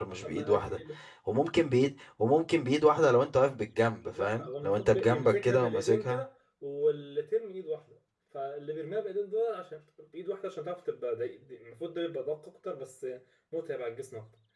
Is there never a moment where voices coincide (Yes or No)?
No